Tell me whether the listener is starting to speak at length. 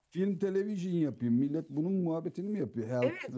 Yes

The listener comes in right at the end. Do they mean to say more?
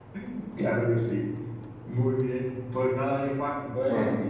No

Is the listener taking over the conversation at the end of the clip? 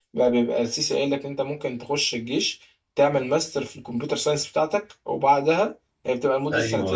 No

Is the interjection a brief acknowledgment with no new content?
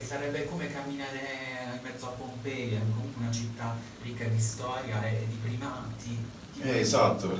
No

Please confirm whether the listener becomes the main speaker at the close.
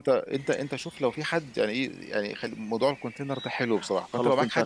Yes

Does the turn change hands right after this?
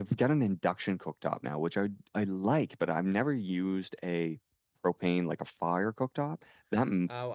Yes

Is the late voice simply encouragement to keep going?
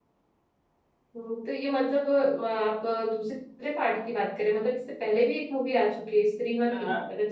No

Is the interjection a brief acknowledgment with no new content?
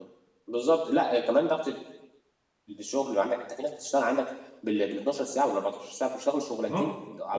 No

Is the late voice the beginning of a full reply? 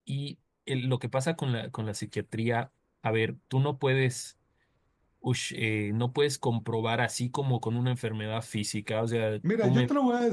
Yes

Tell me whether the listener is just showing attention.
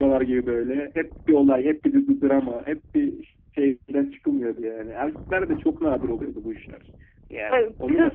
Yes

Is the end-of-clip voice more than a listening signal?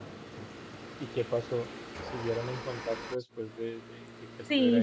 Yes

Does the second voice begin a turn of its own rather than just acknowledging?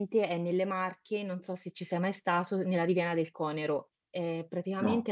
No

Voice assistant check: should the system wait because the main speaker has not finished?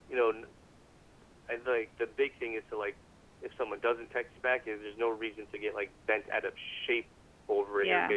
Yes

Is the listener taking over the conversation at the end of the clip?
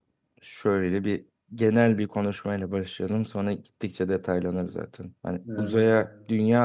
No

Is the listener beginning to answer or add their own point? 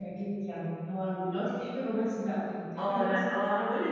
Yes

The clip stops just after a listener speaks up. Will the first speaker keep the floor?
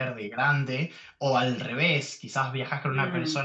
Yes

